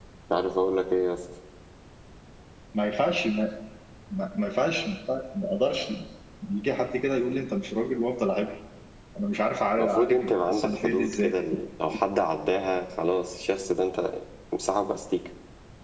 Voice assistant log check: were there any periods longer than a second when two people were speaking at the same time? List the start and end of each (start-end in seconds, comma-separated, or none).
9.8-11.3